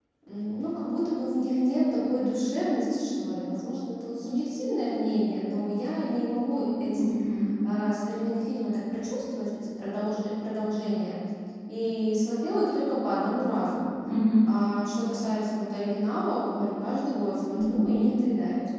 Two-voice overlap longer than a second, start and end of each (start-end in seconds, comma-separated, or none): none